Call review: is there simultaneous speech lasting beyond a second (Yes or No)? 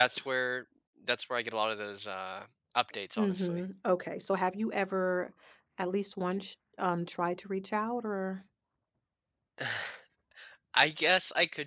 No